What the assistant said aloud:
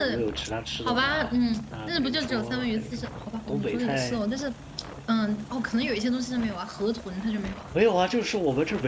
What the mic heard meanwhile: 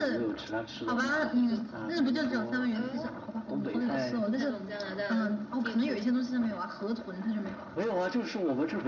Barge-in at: 0.8 s

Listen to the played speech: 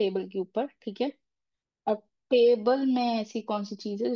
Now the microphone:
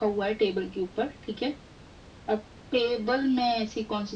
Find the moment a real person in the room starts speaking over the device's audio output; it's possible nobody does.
none

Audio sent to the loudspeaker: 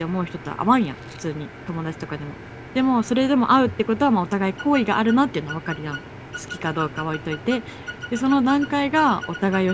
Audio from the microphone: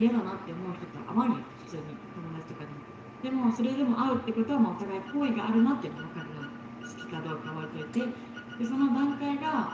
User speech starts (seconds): none

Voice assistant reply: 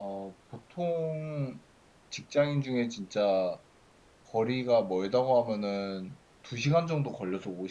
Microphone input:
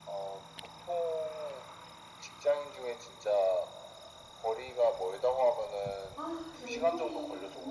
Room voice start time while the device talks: 6.1 s

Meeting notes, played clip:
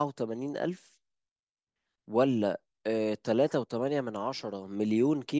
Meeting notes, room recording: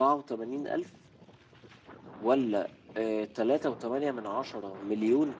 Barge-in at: none

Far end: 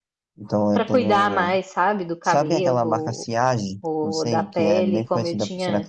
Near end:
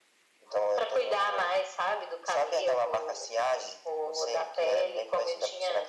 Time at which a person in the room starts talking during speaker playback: none

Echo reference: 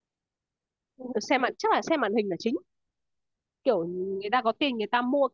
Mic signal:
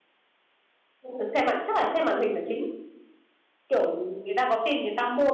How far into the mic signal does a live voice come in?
none

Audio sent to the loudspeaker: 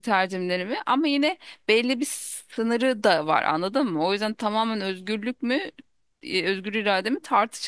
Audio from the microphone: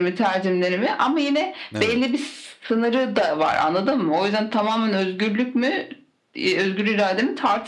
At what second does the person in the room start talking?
1.7 s

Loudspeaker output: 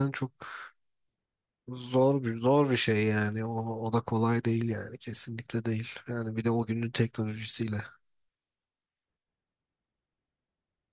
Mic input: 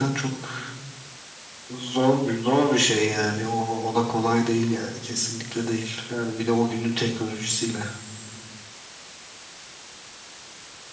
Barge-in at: none

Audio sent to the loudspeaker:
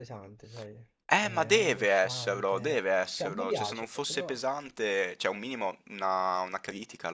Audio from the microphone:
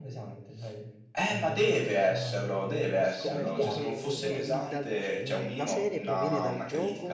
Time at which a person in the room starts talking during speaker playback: 2.9 s

